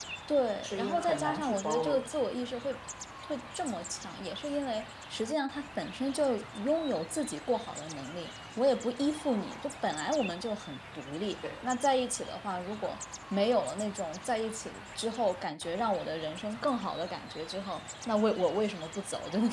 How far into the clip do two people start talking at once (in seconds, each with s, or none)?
0.6 s